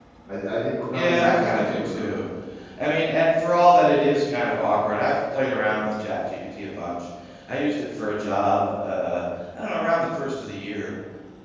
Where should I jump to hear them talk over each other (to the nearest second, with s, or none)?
1 s